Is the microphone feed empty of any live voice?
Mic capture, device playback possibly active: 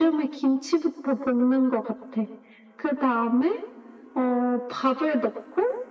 Yes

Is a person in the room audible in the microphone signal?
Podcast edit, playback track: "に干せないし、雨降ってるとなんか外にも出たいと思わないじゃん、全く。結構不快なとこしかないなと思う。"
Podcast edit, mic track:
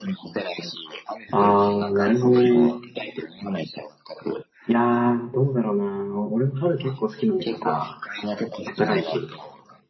Yes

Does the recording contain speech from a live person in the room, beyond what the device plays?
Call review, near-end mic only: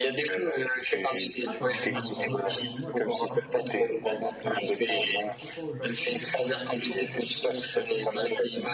Yes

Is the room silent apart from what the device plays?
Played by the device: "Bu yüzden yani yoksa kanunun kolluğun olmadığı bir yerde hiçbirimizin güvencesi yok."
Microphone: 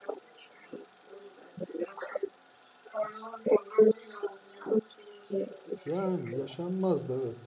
No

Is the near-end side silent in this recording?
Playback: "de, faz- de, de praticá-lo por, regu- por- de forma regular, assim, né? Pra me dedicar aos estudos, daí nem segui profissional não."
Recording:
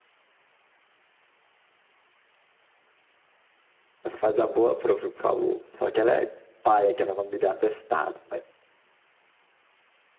No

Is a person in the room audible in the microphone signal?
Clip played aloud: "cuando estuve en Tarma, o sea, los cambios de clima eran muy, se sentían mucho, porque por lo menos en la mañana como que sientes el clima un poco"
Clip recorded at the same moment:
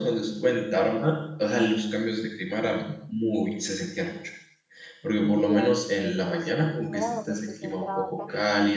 Yes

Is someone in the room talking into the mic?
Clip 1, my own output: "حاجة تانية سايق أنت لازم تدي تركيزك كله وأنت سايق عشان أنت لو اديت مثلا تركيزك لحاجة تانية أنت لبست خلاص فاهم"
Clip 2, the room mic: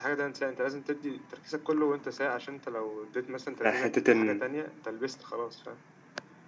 Yes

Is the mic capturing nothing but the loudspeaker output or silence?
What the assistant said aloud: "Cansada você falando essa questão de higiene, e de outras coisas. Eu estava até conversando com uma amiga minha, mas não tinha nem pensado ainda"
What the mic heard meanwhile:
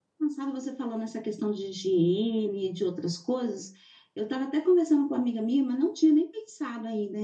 Yes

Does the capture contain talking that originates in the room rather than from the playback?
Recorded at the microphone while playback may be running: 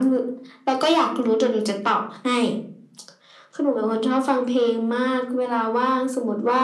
No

